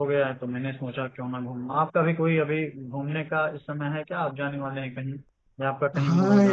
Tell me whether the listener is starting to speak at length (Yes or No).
Yes